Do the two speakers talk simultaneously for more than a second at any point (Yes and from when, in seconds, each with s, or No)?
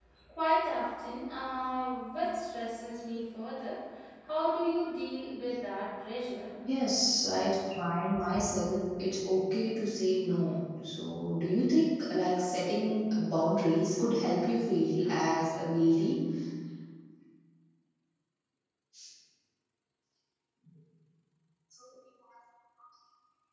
No